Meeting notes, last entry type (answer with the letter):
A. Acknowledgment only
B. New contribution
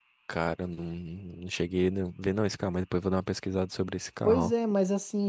B